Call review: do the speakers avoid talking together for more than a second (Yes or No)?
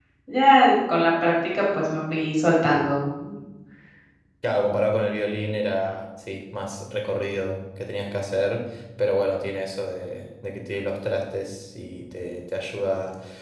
Yes